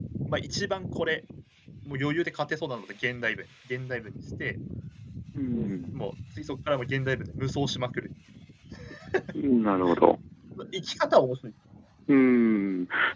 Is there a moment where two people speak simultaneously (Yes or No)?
No